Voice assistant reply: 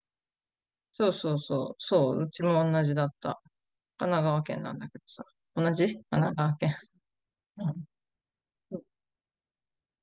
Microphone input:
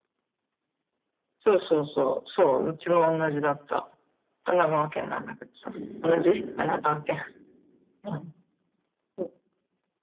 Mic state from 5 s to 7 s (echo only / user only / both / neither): both